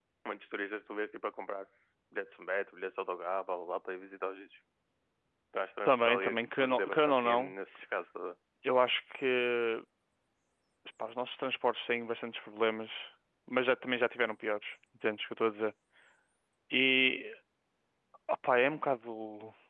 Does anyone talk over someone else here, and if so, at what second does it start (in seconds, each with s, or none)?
5.8 s